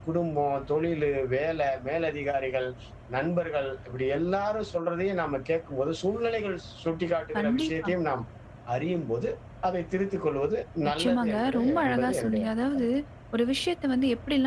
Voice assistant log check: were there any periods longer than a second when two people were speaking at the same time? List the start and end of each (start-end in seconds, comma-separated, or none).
11.0-12.9